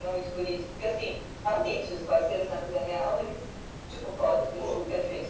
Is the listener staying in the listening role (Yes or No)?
Yes